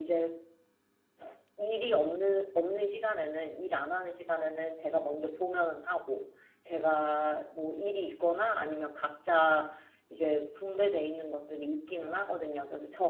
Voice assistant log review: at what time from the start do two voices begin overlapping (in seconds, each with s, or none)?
none